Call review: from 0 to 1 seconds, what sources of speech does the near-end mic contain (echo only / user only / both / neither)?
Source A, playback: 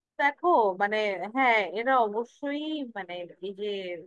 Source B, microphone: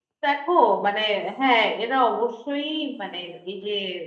echo only